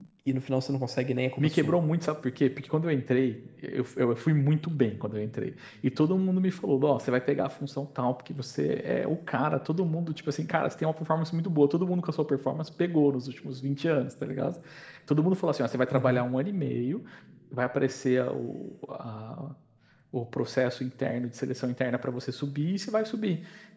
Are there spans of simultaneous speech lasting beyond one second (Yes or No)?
No